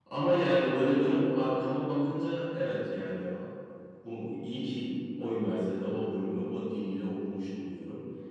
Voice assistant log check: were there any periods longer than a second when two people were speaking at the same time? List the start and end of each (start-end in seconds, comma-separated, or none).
none